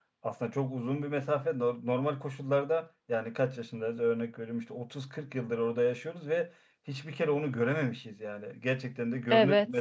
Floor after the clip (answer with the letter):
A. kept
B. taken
B